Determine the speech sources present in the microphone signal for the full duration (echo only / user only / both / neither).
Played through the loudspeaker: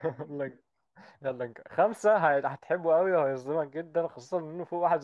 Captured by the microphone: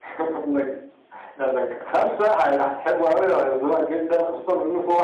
echo only